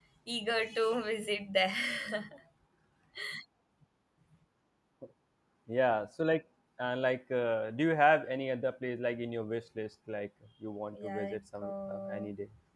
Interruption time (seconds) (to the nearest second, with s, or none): 11 s